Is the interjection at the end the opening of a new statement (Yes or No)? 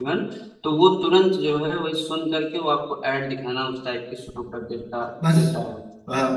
Yes